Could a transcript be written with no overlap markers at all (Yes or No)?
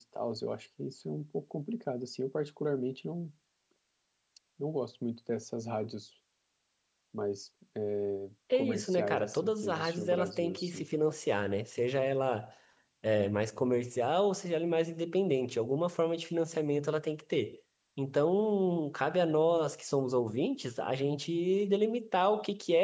No